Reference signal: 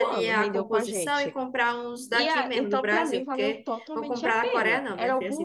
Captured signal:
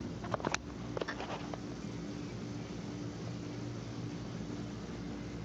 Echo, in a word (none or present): none